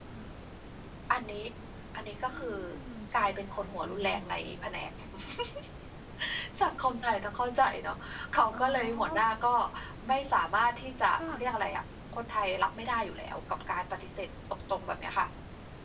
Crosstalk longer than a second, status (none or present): present